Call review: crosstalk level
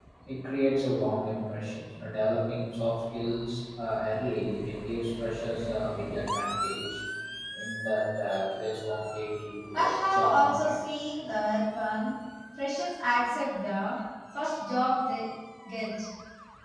present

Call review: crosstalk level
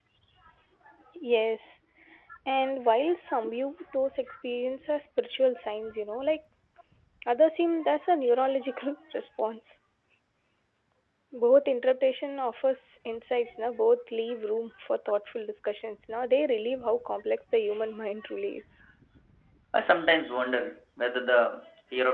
none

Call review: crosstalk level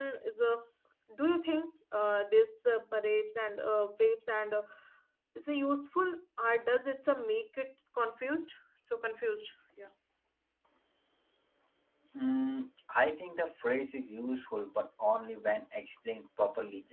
none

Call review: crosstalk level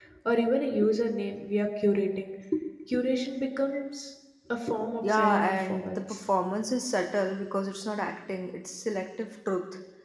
present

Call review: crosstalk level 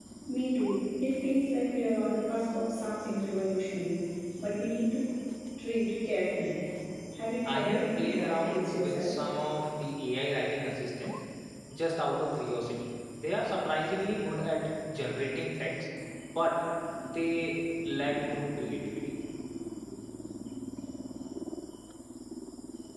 present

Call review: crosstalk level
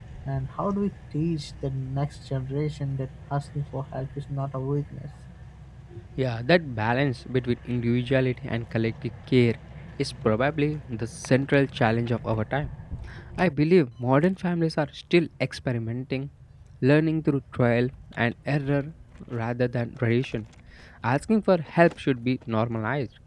none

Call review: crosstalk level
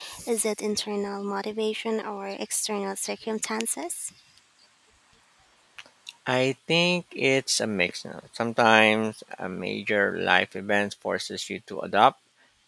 none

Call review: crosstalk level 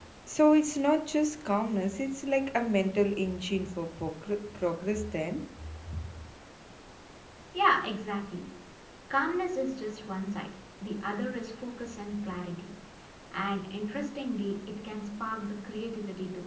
none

